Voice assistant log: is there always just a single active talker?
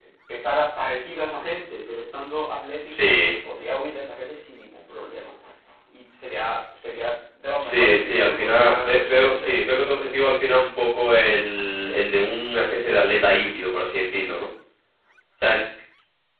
No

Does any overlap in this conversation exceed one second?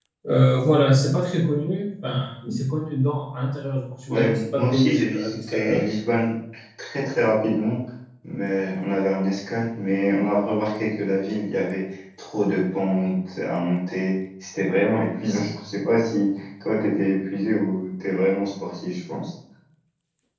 Yes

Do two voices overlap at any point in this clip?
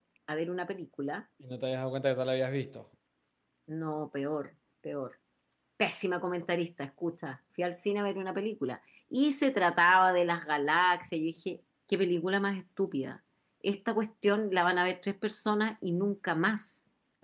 No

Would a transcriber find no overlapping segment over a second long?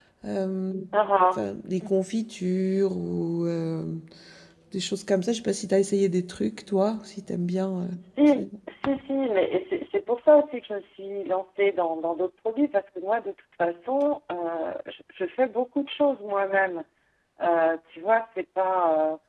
Yes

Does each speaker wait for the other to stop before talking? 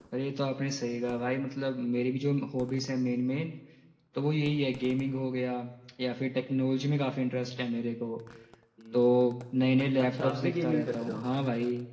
No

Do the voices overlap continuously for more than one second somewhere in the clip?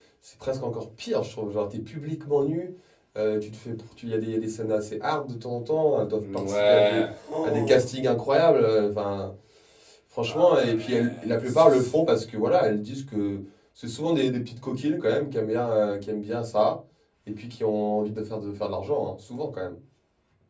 Yes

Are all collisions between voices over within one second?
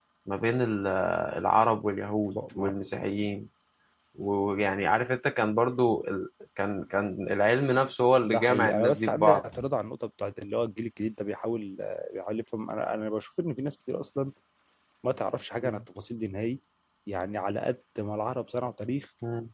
No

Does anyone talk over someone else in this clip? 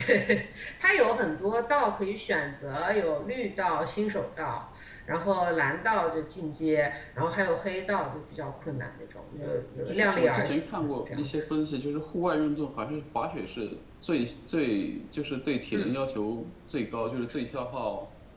Yes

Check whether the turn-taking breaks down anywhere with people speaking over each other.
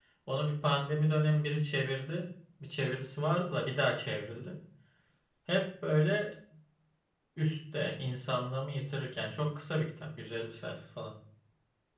No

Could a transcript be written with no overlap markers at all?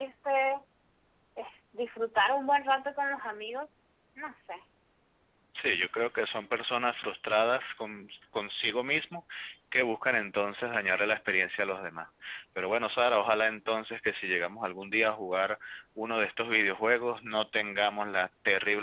Yes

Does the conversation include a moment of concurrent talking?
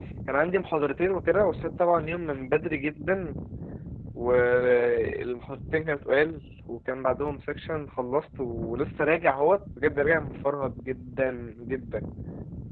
No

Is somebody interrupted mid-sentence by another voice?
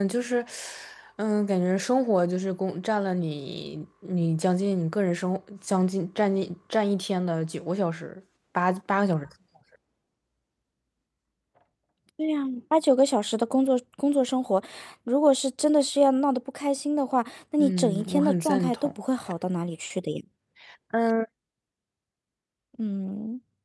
Yes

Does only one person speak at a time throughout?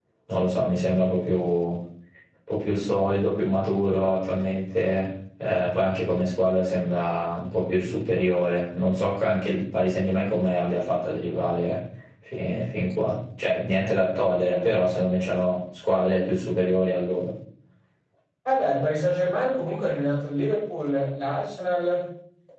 Yes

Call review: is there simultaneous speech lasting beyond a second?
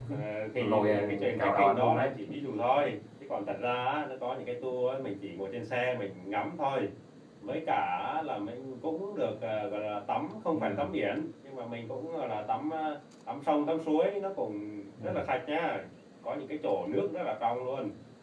Yes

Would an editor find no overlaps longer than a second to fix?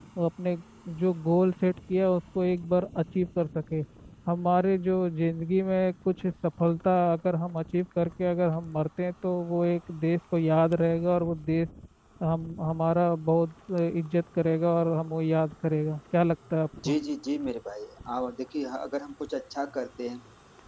Yes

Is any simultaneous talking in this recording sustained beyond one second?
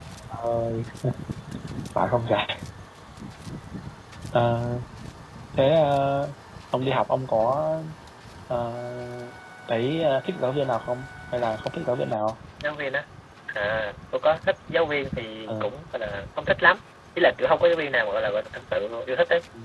No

